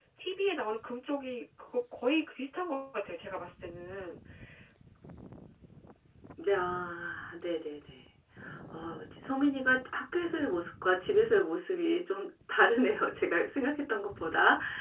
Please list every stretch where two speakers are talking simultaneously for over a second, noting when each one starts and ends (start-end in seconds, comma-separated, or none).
none